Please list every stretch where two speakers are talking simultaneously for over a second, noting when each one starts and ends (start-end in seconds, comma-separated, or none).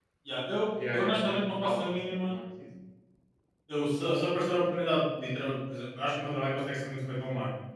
0.9-2.3